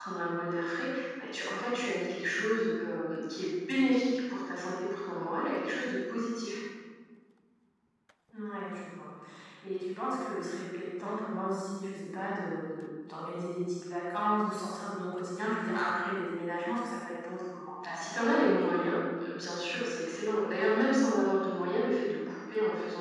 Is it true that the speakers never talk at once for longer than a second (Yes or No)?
Yes